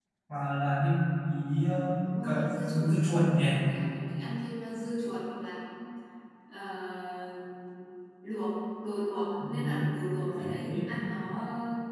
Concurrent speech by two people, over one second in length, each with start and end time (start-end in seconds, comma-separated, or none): none